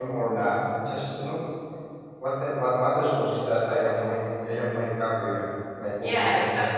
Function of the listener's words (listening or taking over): taking over